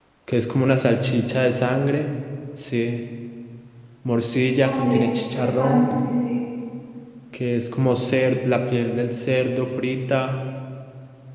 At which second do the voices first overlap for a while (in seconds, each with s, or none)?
4.6 s